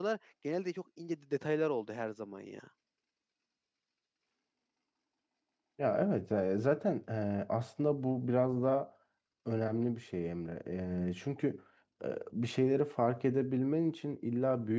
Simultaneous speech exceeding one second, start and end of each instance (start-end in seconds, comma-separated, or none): none